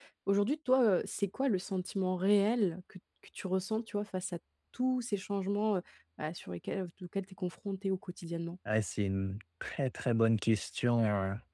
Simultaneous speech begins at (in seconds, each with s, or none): none